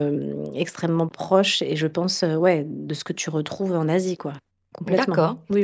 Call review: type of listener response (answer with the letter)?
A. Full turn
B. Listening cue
A